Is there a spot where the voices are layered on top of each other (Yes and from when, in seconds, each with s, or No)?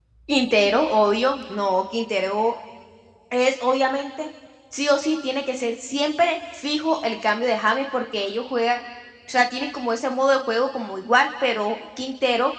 No